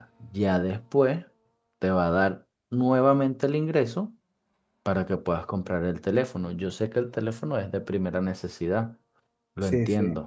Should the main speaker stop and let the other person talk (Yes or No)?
Yes